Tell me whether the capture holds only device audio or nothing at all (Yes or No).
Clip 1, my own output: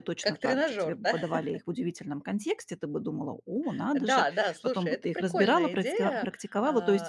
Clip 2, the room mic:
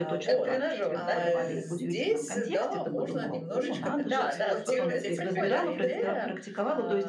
No